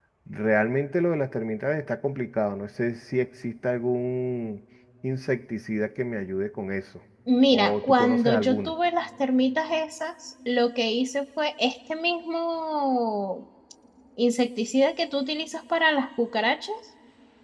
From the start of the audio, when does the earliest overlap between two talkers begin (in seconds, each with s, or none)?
7.5 s